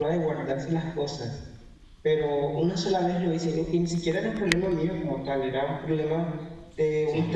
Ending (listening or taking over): listening